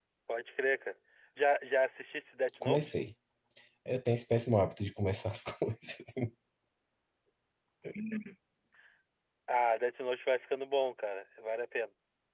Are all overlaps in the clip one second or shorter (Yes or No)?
Yes